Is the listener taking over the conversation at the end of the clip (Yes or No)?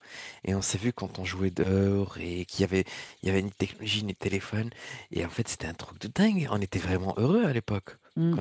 Yes